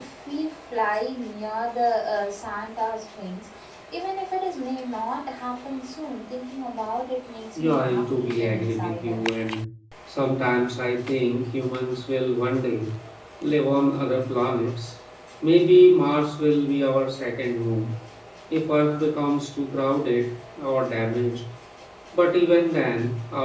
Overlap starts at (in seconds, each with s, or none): 7.5 s